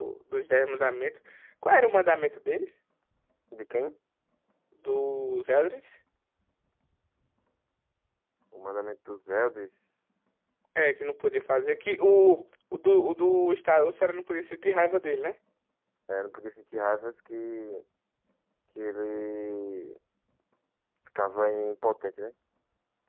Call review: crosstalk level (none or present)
none